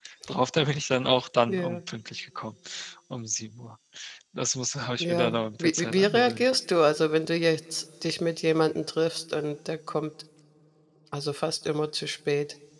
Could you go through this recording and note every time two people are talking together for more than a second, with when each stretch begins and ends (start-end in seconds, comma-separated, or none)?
5.0-6.5